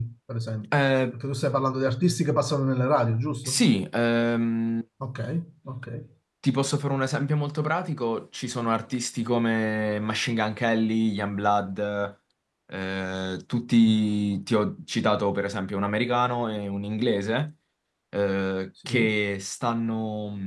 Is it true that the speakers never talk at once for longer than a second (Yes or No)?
Yes